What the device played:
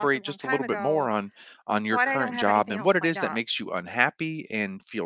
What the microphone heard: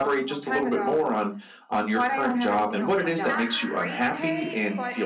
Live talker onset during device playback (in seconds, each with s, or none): 2.9 s